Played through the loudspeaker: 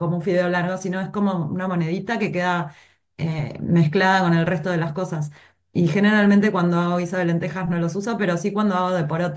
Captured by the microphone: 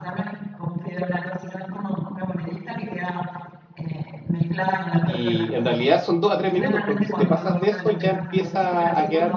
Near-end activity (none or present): present